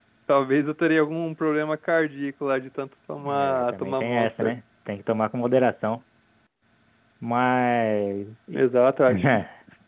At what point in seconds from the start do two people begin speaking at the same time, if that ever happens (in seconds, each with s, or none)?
3.2 s